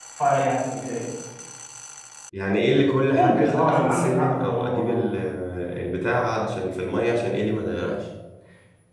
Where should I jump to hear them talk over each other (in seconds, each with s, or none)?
3.1 s